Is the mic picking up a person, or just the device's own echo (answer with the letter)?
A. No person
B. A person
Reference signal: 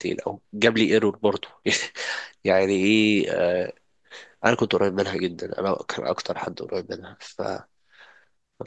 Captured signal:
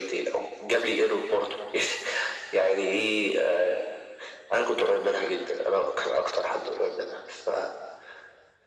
A